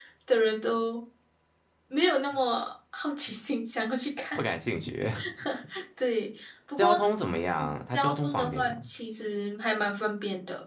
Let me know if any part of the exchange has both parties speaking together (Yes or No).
Yes